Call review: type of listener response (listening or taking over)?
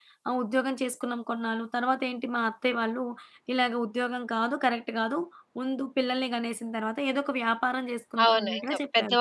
taking over